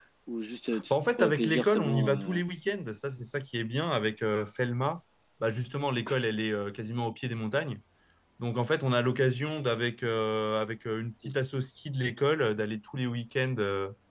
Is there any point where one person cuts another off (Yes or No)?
Yes